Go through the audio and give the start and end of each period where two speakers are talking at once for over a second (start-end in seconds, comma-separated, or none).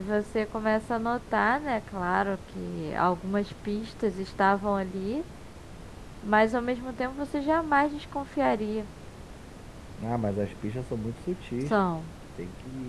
none